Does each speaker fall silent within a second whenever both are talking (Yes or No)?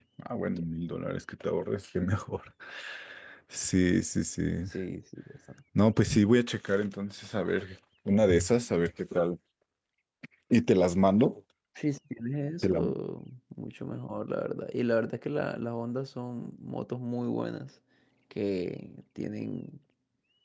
Yes